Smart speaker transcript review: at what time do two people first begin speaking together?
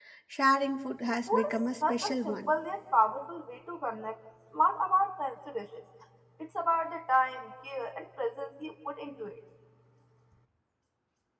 1.3 s

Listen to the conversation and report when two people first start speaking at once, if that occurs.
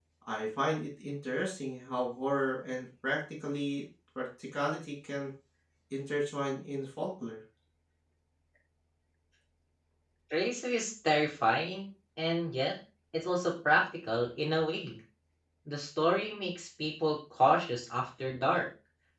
none

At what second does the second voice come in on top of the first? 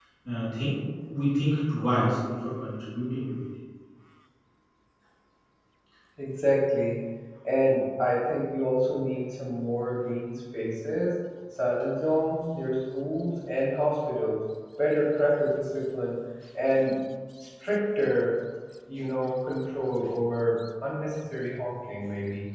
none

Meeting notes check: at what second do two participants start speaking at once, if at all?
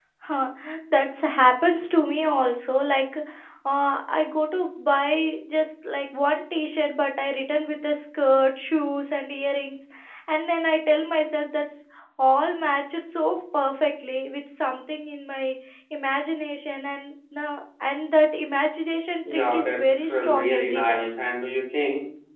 19.3 s

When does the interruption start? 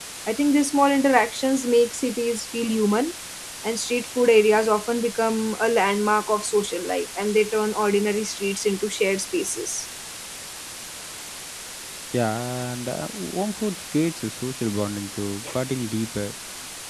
none

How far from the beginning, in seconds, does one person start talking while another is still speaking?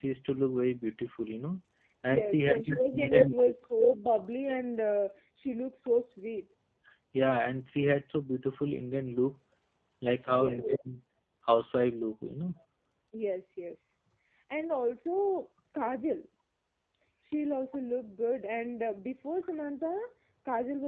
2.1 s

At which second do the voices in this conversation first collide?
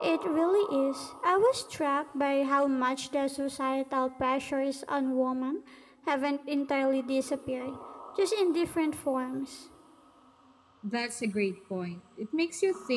none

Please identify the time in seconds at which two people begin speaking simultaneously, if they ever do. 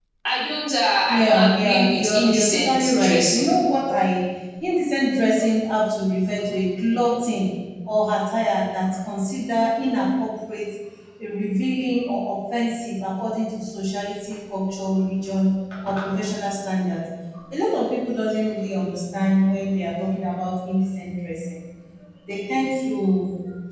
1.1 s

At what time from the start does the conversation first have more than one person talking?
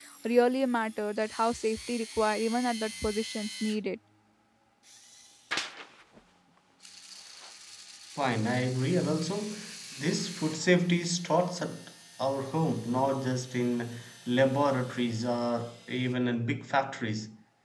none

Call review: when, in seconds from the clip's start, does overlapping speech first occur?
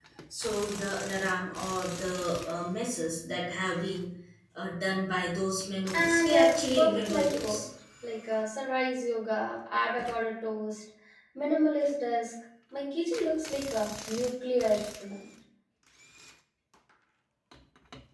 5.9 s

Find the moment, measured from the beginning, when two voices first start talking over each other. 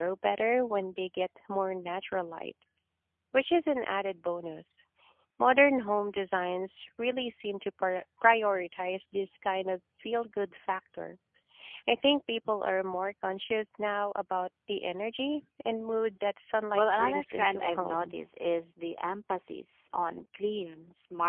16.7 s

